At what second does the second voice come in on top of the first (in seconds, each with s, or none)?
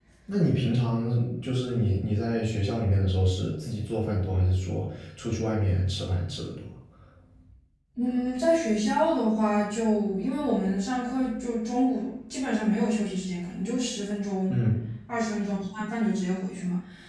none